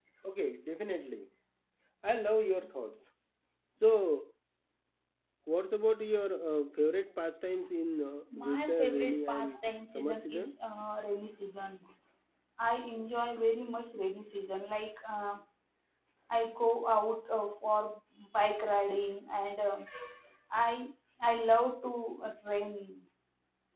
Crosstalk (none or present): present